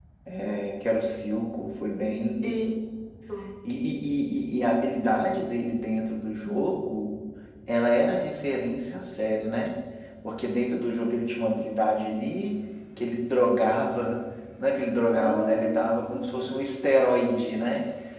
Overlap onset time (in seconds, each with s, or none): 15.2 s